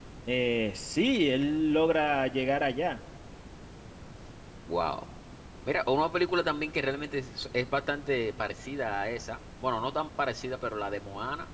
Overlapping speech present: No

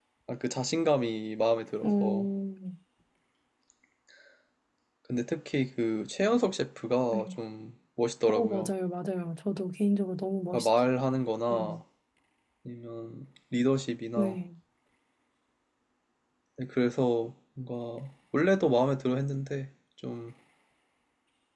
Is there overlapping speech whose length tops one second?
No

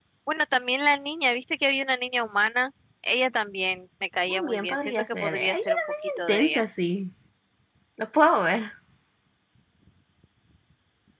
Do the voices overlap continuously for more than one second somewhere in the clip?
Yes, from 4.3 s

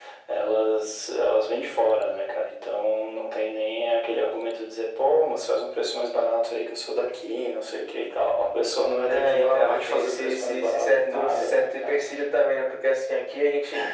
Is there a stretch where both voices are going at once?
Yes, from 9.1 s

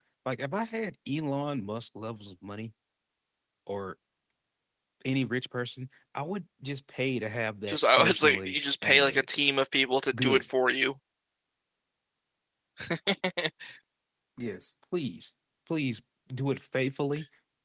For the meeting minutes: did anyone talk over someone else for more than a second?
Yes, from 7.7 s

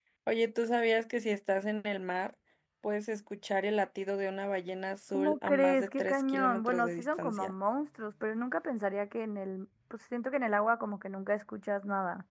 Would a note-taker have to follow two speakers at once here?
Yes, from 5.1 s

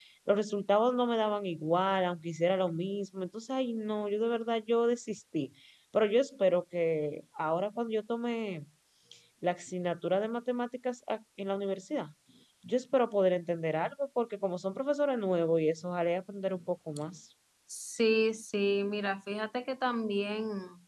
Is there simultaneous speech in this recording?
No

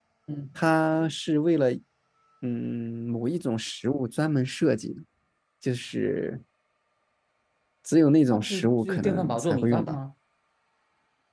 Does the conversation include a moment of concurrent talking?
Yes, from 8.3 s

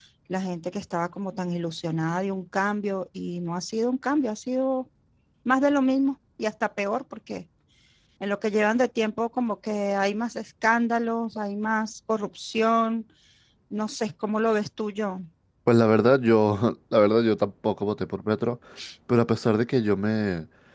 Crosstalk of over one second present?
No

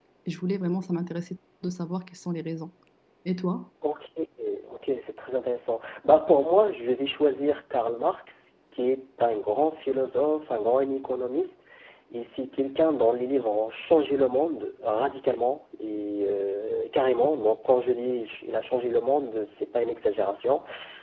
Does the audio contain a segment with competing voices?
No

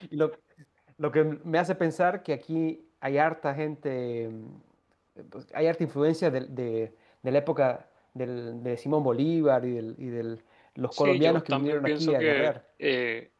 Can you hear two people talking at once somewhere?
Yes, from 10.9 s

